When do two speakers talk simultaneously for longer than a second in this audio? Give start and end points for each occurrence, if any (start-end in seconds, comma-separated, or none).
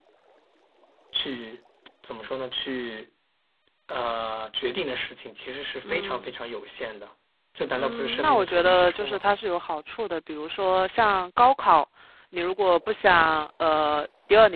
7.7-9.3